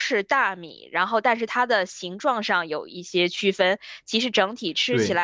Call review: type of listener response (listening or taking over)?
listening